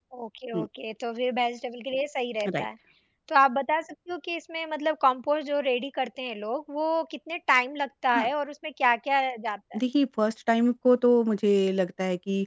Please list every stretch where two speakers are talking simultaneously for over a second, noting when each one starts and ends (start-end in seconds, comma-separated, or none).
none